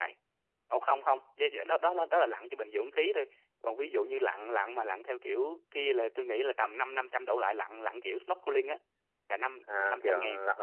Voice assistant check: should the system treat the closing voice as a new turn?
Yes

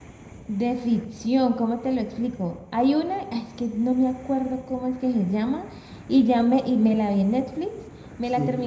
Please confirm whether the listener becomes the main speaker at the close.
No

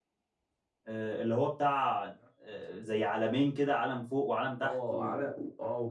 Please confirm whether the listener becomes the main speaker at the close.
Yes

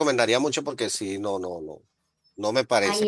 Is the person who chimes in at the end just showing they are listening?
No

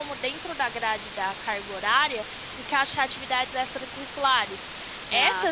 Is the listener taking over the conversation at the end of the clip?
No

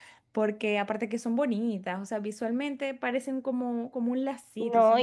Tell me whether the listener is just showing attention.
No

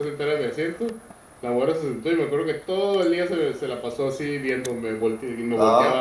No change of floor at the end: Yes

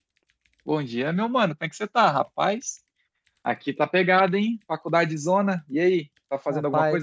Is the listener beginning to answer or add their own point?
Yes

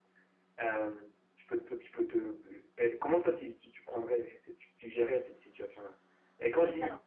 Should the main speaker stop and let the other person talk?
No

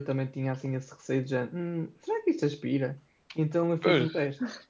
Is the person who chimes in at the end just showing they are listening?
Yes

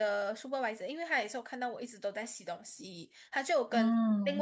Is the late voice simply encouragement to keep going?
Yes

